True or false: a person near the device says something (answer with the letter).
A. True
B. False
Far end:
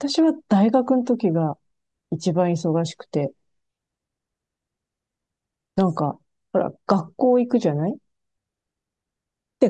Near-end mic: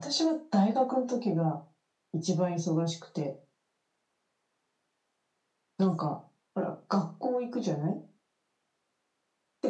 B